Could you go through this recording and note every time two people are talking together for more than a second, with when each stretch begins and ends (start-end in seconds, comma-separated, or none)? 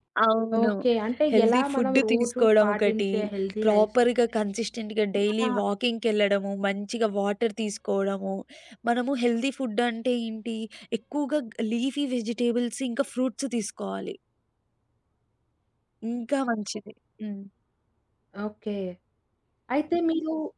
1.3-3.0